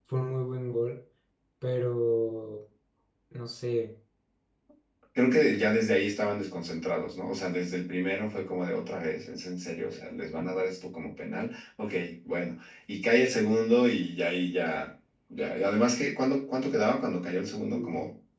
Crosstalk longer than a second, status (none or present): none